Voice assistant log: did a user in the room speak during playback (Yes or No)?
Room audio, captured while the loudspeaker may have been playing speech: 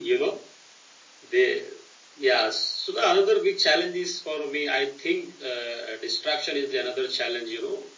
No